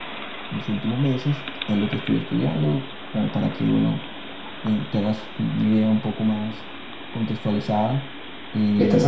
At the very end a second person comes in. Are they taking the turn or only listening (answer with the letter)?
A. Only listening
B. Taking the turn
B